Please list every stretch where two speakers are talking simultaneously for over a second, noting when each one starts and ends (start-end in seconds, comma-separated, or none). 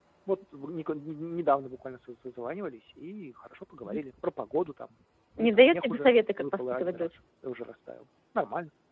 5.4-7.1